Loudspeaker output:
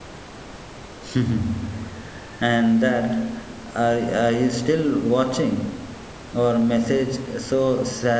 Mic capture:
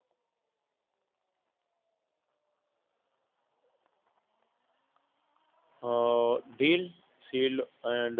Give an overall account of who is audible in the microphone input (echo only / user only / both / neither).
user only